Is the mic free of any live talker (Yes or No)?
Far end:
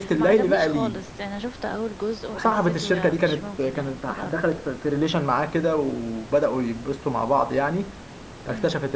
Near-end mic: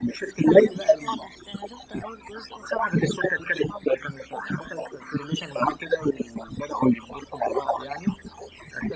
Yes